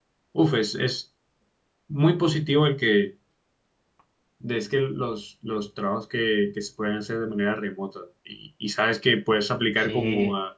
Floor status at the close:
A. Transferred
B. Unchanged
B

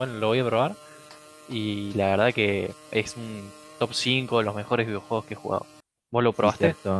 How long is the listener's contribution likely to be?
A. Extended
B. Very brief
A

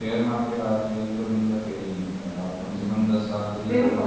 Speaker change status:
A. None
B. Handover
B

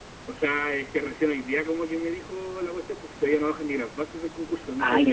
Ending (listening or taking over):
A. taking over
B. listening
A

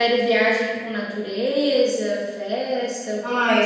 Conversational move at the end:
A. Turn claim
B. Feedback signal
A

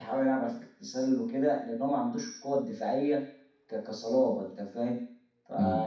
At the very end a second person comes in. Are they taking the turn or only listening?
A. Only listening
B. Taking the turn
A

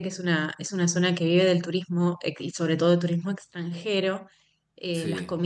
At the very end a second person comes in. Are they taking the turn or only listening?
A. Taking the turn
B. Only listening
B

